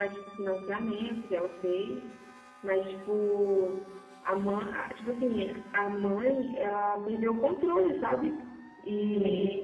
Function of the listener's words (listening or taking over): listening